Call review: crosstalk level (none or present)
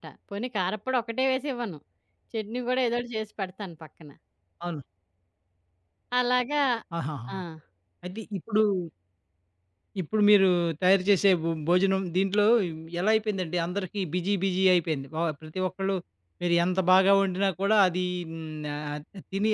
none